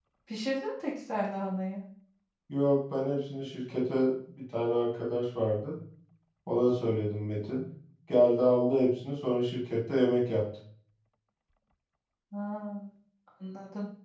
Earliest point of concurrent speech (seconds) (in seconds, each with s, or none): none